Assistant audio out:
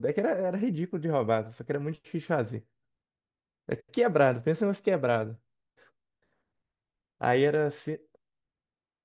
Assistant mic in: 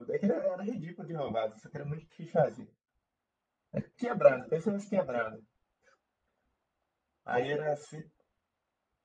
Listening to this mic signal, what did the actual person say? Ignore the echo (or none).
none